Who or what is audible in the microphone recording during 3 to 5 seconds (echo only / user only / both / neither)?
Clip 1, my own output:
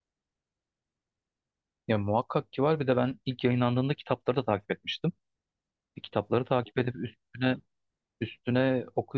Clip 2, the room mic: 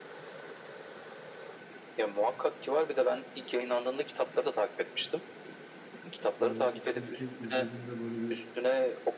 echo only